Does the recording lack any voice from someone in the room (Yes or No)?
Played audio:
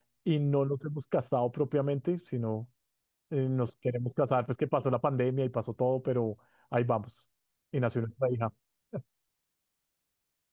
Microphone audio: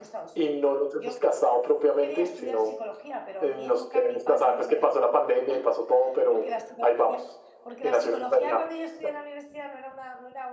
No